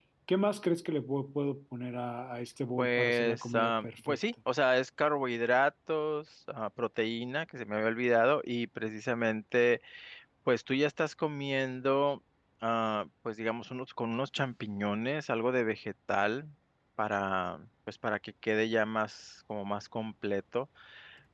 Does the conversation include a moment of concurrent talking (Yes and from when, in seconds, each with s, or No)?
Yes, from 2.8 s